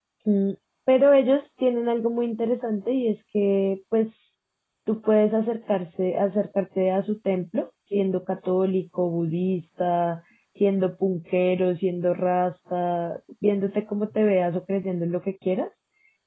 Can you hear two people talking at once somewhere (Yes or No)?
No